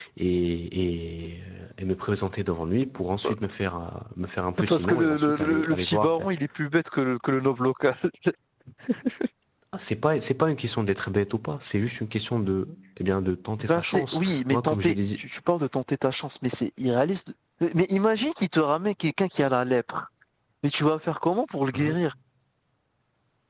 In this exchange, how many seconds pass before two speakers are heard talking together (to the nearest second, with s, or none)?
5 s